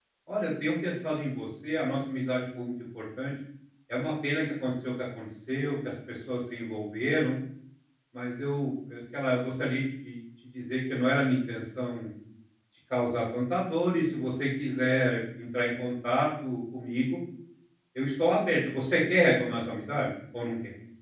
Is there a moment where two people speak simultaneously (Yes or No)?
No